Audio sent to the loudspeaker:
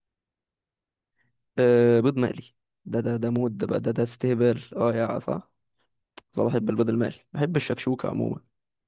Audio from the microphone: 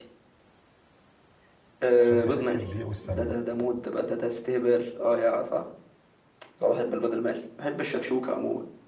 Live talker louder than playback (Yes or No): No